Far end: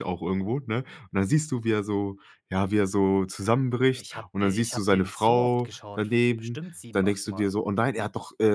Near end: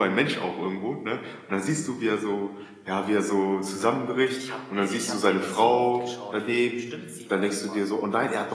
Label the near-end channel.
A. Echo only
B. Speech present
A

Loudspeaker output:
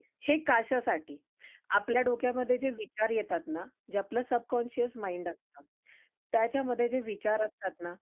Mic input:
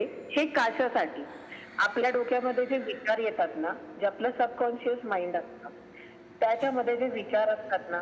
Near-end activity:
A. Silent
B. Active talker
A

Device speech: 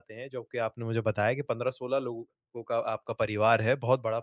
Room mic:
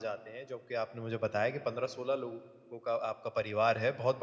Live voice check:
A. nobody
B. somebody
A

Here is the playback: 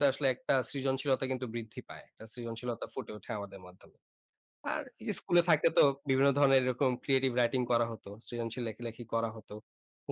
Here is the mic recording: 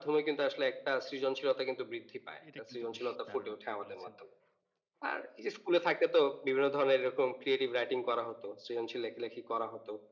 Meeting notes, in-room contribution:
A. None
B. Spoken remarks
B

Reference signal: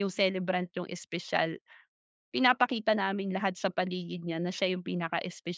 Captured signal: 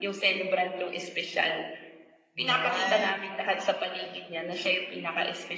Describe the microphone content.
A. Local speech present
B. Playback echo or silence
A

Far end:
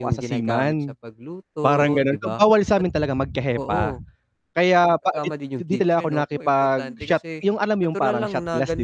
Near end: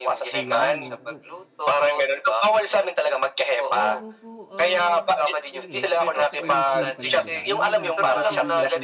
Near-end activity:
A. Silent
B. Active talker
B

